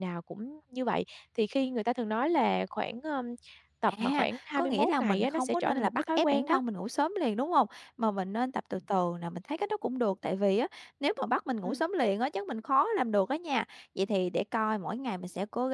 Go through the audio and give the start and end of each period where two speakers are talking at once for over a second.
3.9-6.6

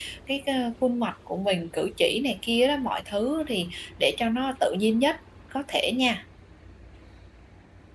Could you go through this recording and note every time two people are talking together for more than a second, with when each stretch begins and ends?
none

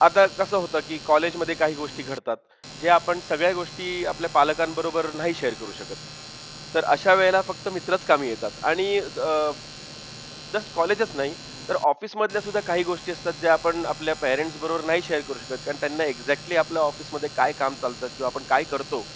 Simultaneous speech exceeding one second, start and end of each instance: none

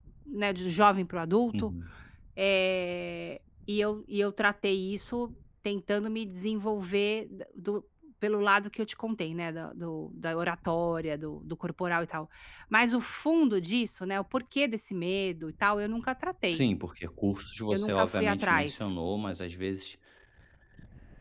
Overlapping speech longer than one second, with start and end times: 17.7-18.9

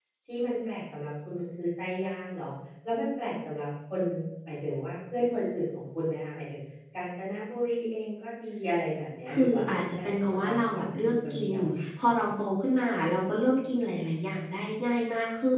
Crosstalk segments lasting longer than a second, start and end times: 9.4-11.5

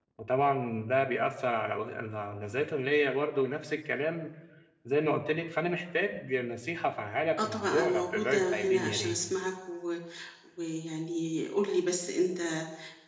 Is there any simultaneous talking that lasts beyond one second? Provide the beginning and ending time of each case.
7.4-9.2

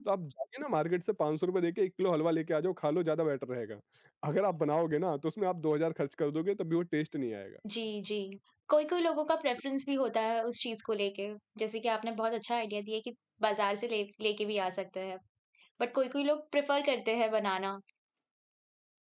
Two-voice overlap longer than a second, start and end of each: none

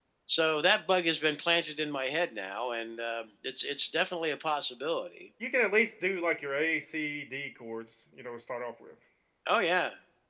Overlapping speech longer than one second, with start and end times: none

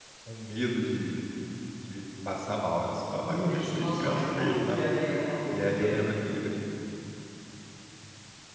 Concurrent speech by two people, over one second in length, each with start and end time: 3.3-4.8

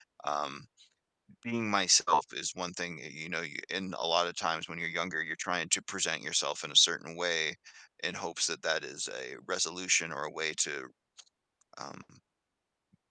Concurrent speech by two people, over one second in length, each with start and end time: none

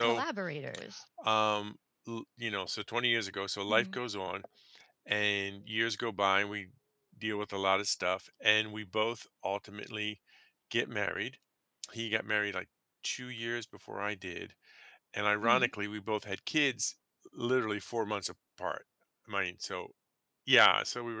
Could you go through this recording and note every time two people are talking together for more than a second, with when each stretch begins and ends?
none

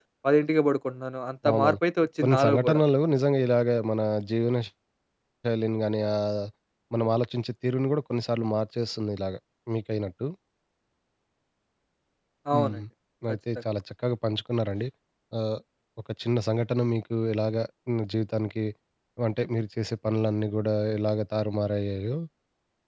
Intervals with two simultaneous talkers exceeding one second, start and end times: none

